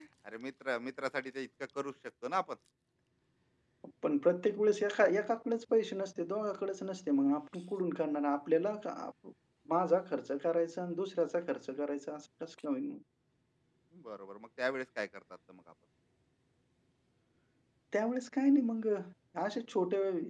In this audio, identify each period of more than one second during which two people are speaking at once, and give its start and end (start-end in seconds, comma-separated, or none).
none